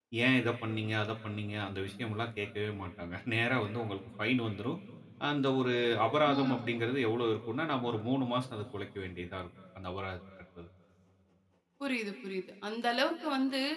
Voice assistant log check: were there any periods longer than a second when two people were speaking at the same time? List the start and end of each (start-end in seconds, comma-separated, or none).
none